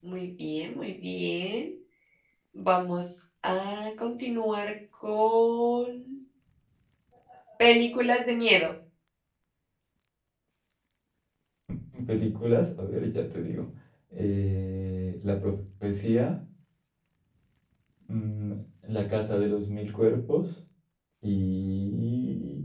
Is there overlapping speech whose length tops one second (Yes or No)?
No